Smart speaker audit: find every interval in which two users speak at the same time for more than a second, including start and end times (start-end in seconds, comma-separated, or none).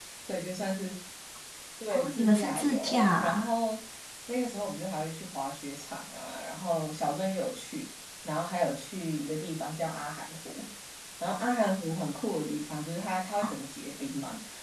1.9-3.5